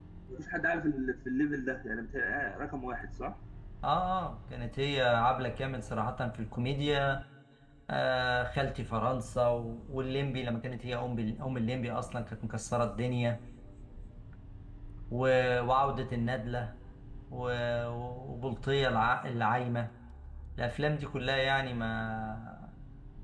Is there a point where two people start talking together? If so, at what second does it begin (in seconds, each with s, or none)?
none